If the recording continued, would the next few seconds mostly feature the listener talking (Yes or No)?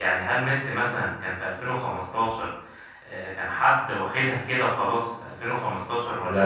No